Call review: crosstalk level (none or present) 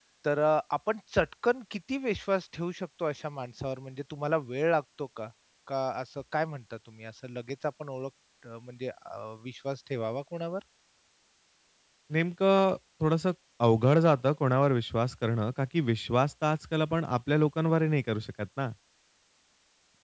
none